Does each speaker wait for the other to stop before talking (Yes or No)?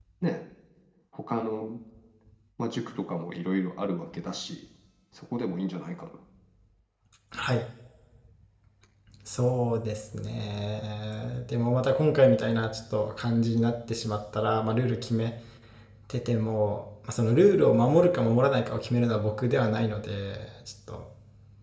Yes